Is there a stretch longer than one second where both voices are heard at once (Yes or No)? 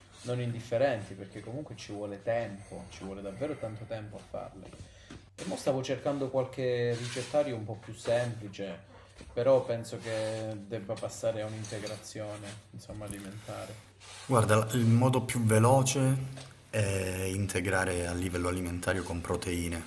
No